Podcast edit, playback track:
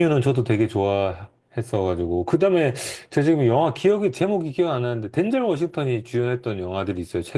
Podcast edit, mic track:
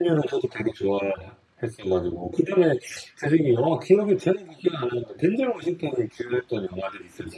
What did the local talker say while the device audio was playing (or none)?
none